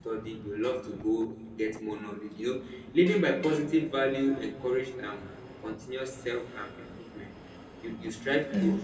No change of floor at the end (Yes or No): Yes